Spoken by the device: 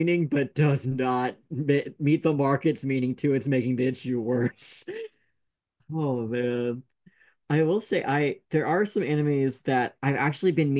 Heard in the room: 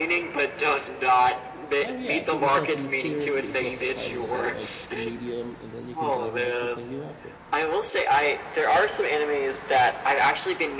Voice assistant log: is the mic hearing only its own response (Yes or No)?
No